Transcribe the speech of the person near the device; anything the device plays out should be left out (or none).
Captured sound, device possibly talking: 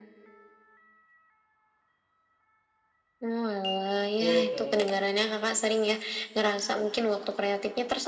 full ke